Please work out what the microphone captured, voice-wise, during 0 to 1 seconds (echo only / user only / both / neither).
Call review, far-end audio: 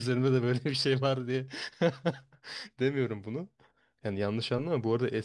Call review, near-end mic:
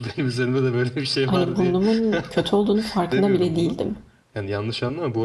echo only